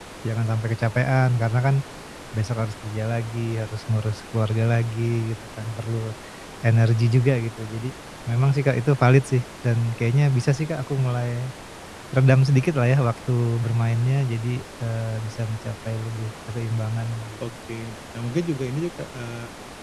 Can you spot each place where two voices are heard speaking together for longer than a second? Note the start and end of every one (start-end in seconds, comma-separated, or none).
none